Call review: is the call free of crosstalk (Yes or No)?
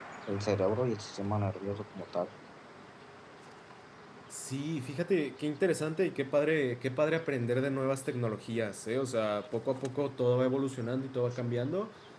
Yes